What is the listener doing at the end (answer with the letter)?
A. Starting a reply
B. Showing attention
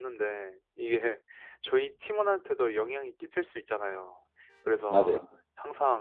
B